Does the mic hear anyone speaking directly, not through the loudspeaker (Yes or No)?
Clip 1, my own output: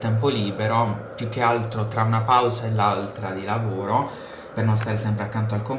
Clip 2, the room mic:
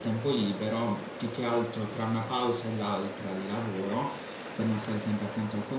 No